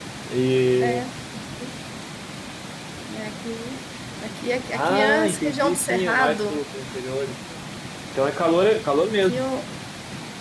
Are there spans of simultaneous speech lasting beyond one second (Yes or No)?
Yes